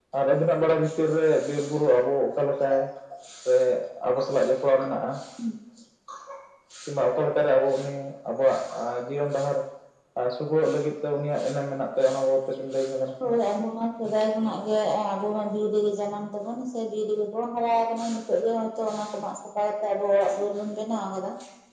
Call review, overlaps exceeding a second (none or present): none